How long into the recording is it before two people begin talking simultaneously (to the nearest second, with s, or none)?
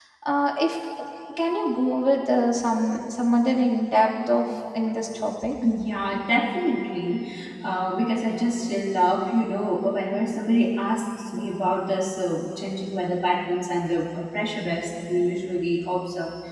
none